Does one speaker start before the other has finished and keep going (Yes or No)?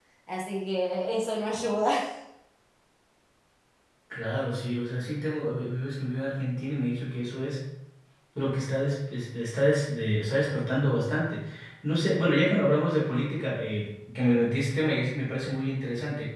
No